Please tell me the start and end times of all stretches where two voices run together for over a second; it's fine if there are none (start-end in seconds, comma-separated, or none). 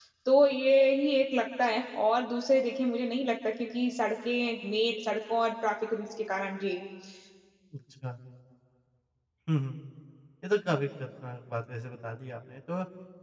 none